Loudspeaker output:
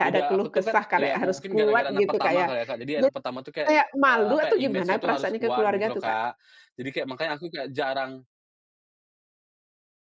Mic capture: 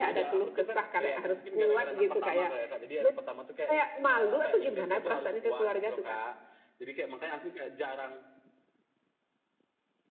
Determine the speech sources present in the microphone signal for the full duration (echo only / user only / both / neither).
echo only